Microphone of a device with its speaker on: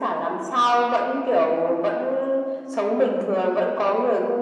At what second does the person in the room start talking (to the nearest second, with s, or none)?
none